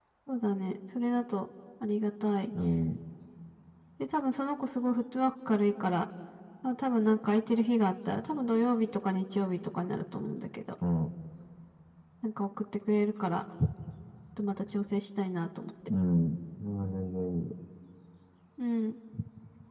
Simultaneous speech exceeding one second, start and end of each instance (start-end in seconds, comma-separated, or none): none